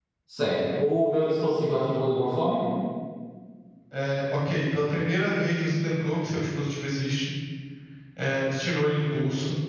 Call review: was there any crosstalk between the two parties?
No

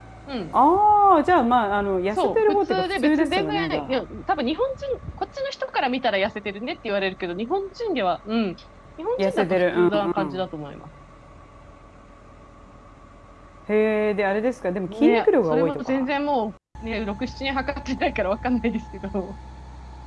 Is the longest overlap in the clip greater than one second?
Yes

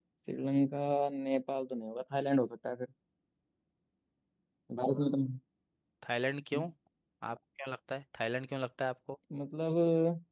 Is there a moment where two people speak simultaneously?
No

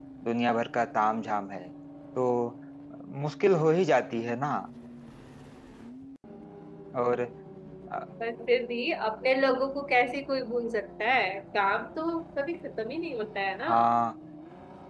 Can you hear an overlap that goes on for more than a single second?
No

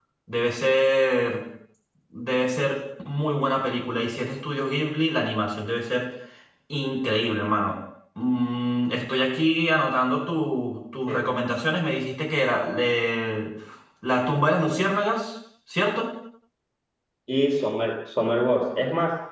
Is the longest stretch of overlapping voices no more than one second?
Yes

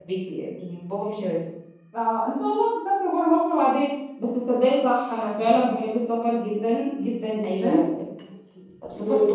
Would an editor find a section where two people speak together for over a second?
No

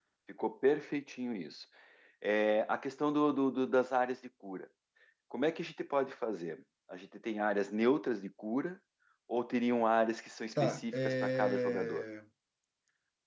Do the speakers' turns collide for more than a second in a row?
Yes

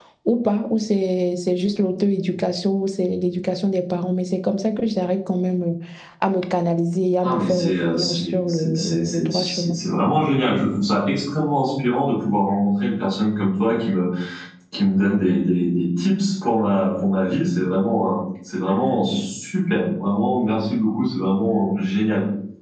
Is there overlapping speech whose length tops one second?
Yes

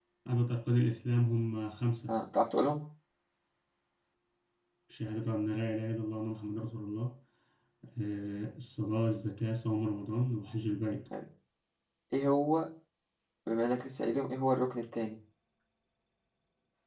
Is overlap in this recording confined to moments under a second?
Yes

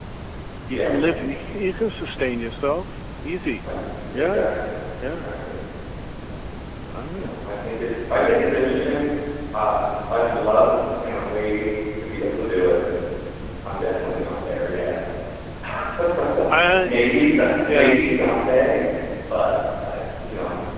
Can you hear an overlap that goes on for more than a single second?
Yes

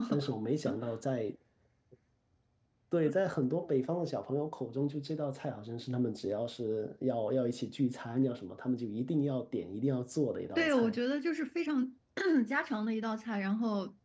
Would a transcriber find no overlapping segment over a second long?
Yes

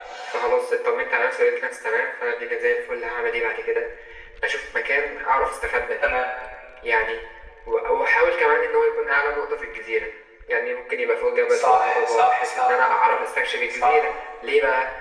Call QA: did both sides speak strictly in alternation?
No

